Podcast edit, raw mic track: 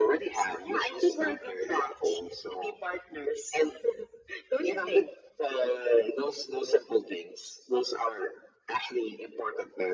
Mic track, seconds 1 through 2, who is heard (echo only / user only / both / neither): echo only